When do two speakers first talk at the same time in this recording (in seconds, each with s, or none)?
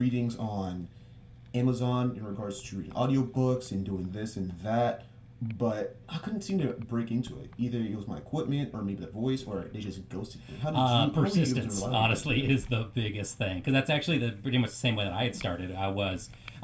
10.7 s